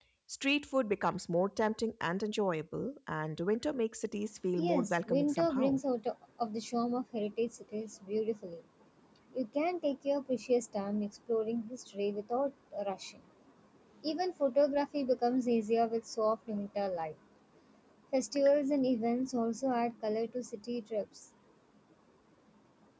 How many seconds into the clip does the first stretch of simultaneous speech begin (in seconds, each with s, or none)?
4.6 s